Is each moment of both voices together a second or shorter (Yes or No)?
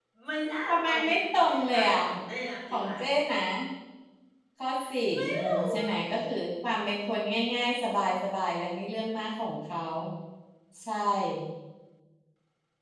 No